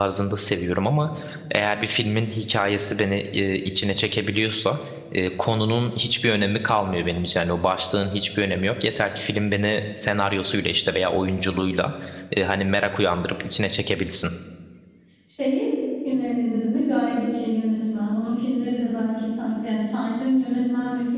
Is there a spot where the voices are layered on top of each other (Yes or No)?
No